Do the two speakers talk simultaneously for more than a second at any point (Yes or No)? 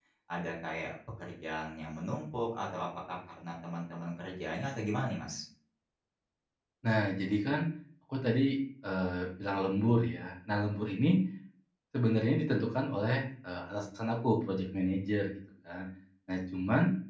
No